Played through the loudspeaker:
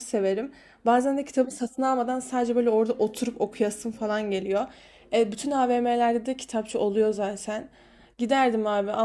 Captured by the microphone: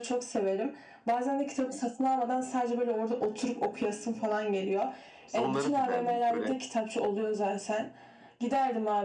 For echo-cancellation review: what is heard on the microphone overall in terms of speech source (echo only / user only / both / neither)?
both